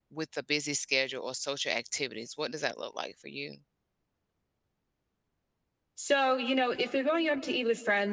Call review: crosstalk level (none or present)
none